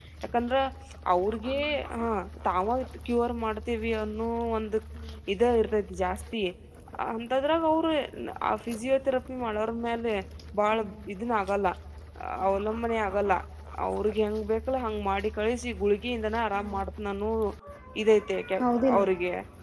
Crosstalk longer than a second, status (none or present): none